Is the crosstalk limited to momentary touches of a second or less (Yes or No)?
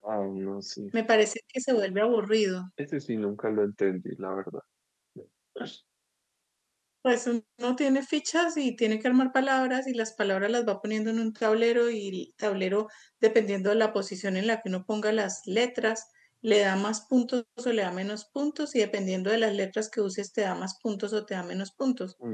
Yes